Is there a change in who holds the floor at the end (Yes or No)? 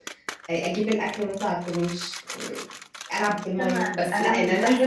Yes